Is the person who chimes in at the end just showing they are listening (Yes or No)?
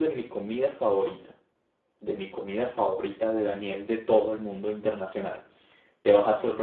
Yes